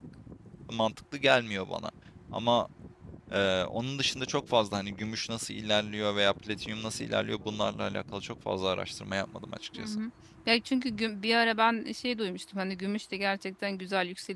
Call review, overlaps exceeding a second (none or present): none